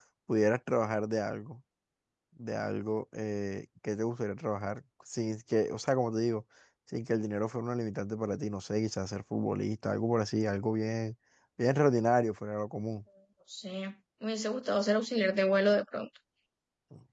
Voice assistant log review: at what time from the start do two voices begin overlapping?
none

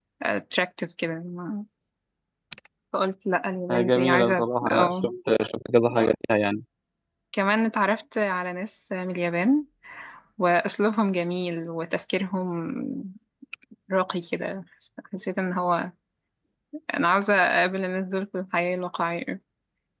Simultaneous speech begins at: 3.7 s

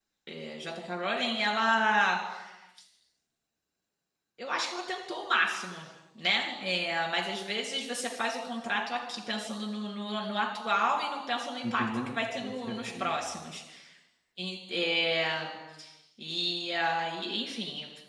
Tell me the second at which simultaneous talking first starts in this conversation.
11.6 s

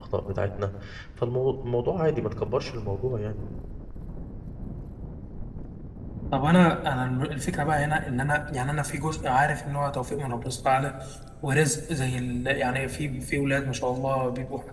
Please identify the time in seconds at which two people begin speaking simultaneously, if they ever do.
none

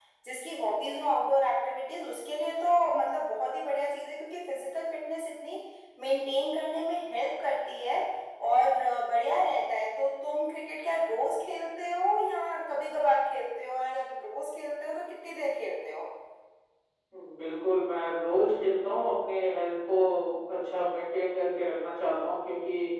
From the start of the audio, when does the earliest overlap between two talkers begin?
none

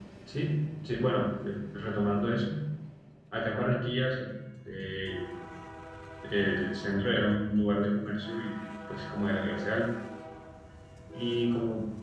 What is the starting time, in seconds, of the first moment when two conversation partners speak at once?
none

